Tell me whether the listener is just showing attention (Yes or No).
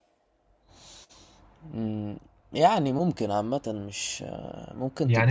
No